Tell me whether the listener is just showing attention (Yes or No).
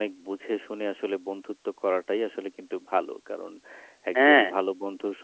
Yes